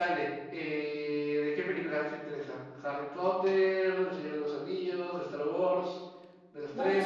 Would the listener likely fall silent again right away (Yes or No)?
No